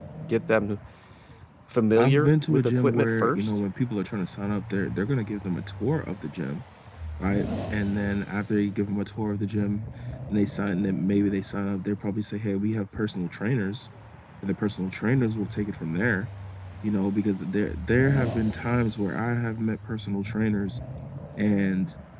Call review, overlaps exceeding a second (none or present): present